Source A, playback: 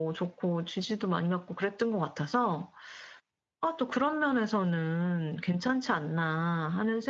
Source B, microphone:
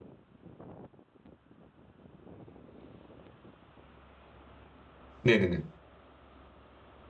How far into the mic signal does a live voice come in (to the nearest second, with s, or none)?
5 s